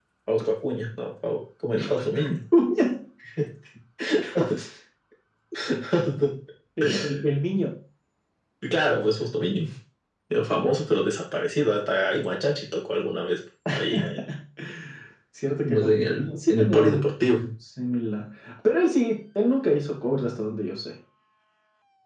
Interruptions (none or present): present